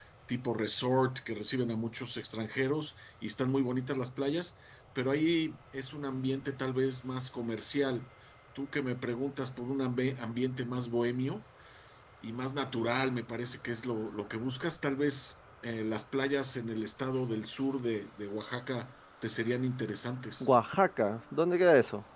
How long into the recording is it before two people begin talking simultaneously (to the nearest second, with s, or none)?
none